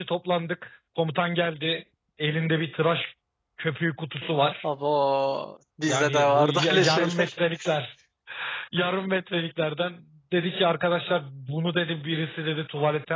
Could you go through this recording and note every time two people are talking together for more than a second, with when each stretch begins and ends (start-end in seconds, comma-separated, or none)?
5.9-7.3